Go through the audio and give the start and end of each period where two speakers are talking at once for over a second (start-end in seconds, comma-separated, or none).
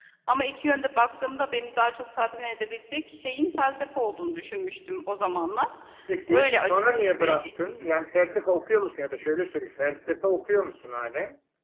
6.3-7.7